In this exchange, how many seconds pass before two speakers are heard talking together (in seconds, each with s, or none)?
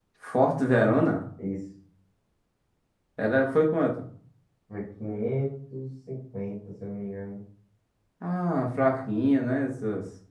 none